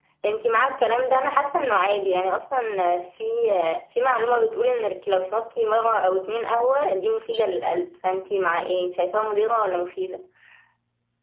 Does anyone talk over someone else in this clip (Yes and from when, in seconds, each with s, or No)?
No